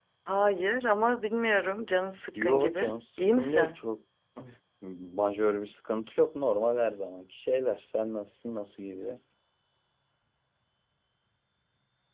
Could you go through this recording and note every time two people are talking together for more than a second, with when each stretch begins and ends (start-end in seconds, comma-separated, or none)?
2.4-3.8